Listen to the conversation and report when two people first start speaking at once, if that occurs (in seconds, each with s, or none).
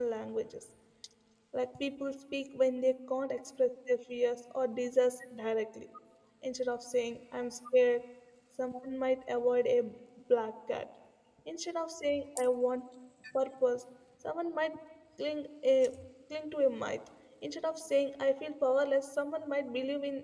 none